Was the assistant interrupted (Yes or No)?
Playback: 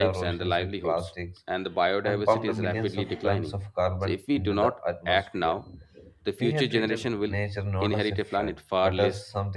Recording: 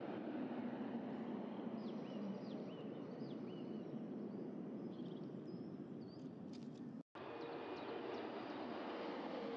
No